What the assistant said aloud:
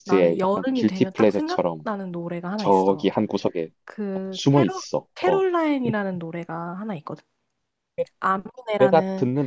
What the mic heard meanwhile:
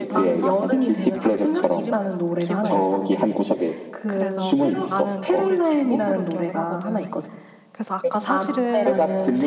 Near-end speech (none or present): present